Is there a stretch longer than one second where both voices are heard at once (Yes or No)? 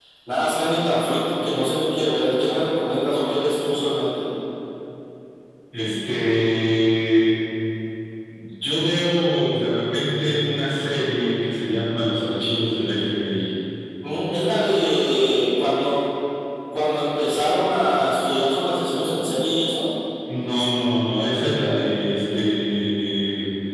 No